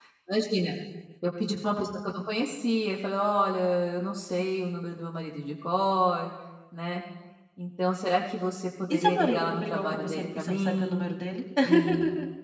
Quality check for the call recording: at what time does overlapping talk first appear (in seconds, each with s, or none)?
8.9 s